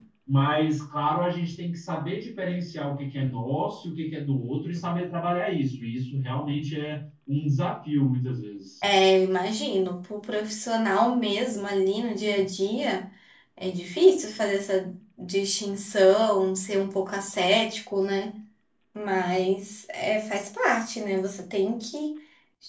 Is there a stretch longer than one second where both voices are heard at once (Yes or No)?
No